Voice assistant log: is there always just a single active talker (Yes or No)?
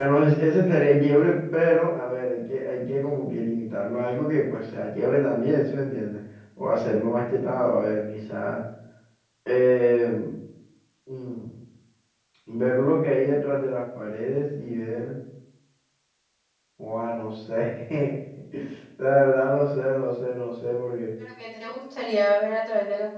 Yes